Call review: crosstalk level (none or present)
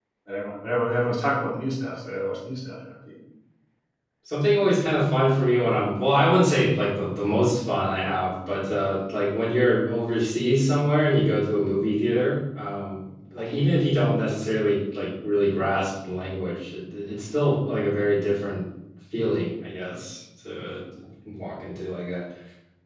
none